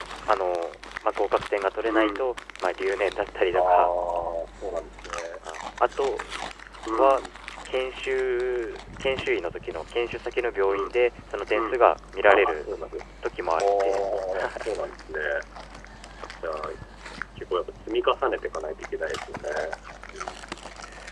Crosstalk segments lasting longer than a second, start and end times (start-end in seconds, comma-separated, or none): none